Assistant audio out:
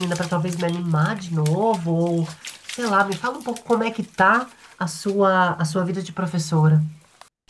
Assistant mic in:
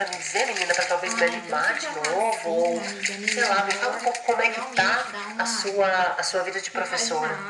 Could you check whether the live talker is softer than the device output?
Yes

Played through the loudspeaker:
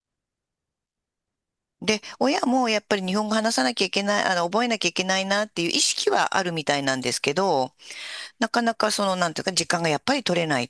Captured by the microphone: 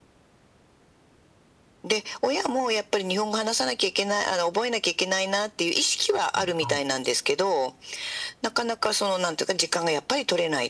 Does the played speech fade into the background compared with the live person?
No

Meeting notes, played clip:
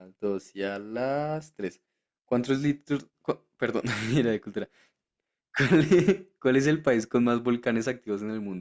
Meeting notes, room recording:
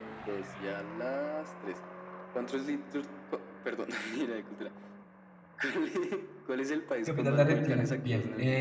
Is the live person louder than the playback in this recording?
Yes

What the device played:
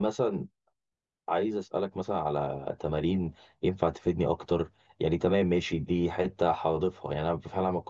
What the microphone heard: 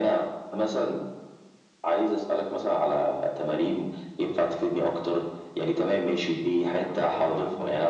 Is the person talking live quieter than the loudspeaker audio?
Yes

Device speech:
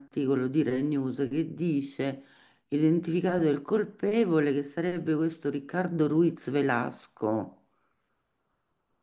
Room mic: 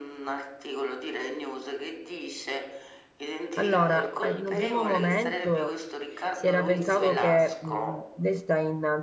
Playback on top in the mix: No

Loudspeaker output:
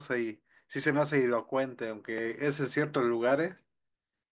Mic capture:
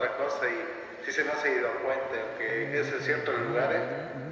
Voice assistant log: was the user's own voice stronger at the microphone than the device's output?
No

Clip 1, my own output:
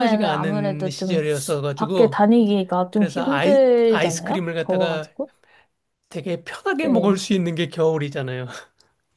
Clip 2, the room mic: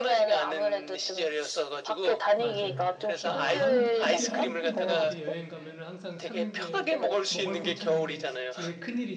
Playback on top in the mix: Yes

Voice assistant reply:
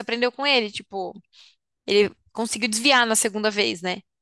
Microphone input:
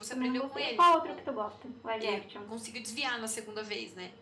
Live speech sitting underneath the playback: No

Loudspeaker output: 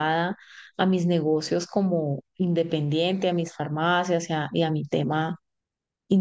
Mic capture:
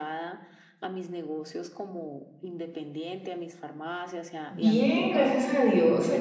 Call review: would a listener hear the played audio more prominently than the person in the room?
No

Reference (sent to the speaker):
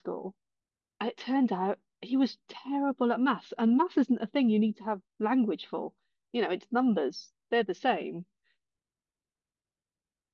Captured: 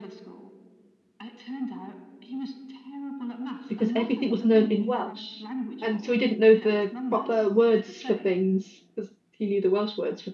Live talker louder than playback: Yes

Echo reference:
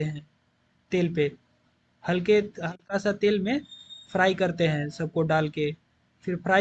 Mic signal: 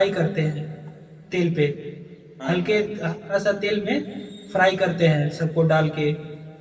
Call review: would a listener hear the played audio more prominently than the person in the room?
Yes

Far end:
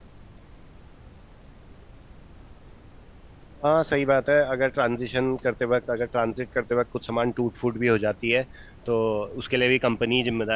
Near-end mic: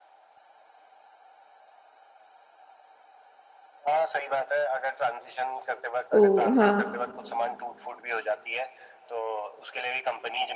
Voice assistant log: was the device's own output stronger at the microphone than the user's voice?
No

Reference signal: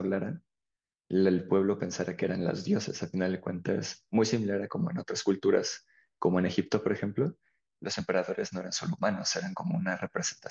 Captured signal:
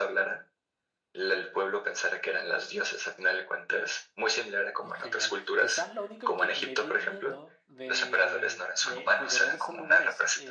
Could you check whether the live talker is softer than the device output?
Yes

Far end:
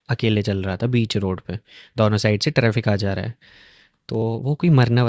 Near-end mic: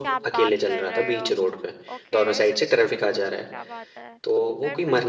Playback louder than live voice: Yes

